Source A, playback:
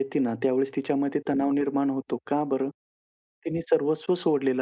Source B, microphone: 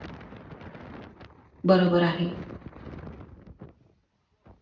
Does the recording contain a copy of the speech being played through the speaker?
No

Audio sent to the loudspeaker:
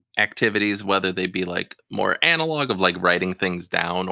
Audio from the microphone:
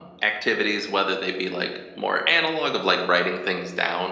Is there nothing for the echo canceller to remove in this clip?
No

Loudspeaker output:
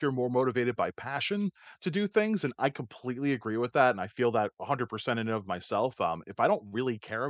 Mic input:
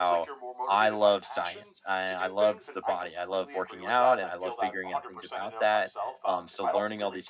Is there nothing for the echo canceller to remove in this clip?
No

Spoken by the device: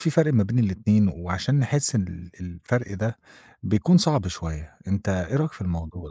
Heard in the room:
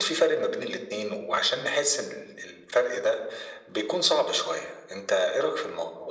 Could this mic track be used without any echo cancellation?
No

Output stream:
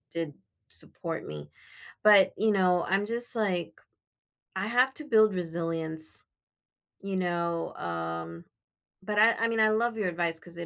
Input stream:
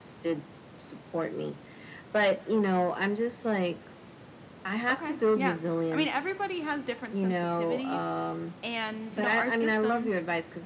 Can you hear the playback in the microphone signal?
Yes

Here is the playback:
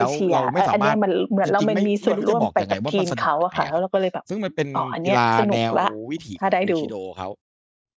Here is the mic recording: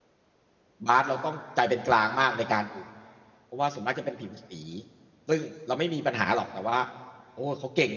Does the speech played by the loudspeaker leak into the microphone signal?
No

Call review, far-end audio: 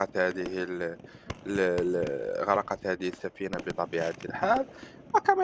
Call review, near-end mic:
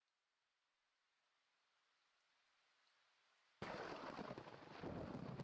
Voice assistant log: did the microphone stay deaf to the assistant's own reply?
Yes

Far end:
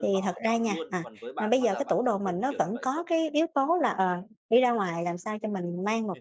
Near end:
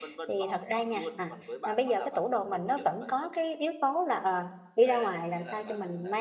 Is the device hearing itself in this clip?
Yes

